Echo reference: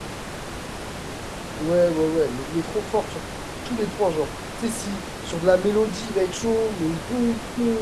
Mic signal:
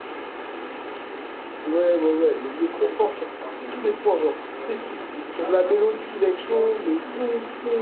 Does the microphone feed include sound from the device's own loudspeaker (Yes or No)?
Yes